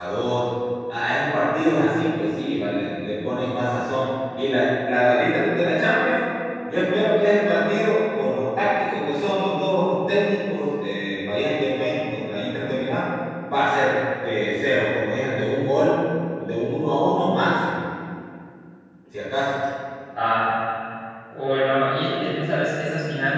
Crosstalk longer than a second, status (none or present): none